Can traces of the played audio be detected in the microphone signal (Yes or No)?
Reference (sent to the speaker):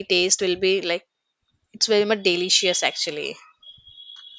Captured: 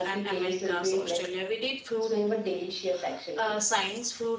Yes